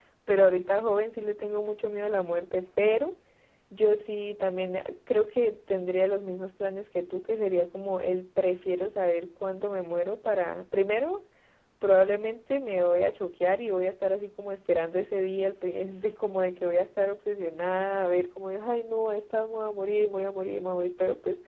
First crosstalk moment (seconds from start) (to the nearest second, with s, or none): none